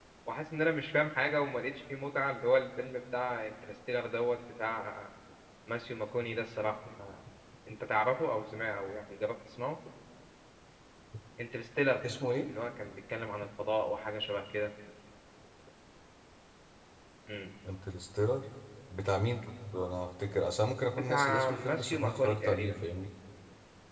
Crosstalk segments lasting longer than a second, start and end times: 21.1-22.8

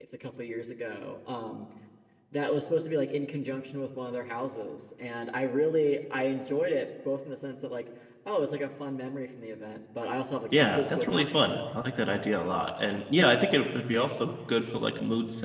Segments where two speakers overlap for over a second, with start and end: 10.5-11.8

